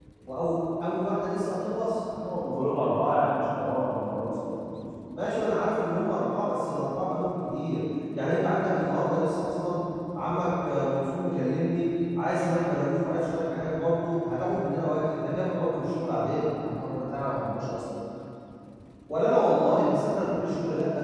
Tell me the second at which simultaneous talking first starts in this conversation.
none

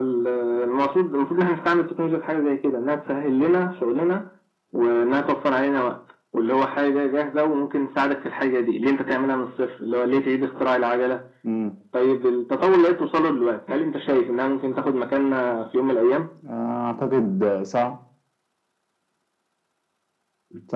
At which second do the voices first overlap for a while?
none

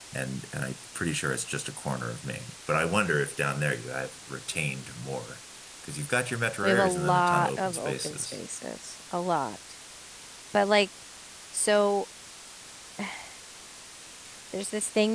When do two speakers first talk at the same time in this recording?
7 s

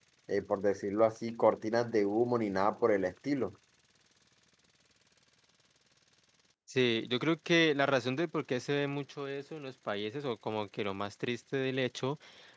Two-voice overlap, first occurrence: none

